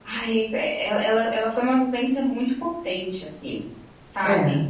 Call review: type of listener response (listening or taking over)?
listening